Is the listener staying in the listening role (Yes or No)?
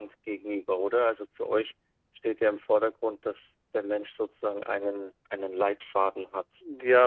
No